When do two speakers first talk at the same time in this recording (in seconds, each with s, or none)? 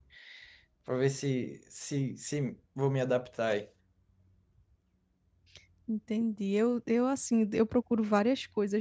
none